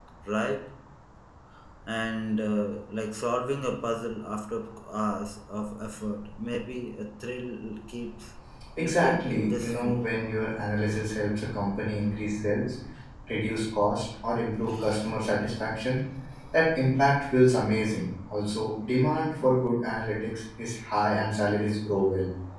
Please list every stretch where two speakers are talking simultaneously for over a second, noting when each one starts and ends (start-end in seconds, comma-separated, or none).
8.8-10.0